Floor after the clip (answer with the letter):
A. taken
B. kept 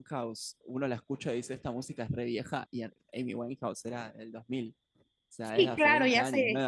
A